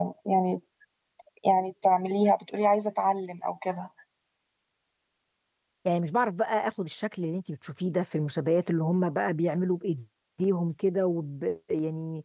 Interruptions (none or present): none